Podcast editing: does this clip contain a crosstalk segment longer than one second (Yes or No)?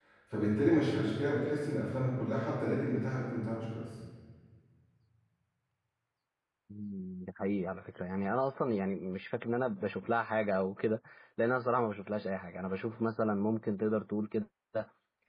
No